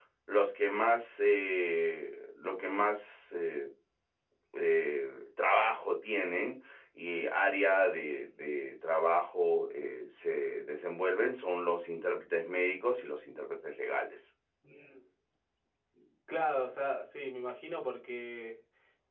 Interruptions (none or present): none